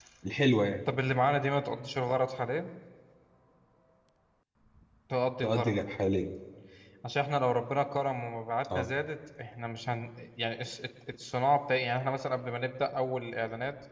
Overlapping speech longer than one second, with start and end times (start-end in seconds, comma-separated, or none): none